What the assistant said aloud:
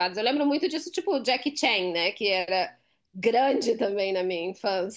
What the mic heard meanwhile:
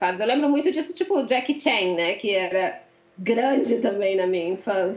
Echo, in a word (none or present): present